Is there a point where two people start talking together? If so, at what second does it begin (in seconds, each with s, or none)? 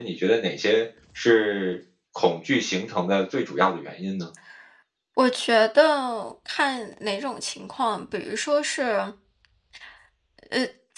none